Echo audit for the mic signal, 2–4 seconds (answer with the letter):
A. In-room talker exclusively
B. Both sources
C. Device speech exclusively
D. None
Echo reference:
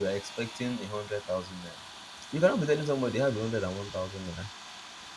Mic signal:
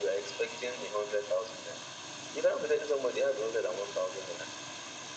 C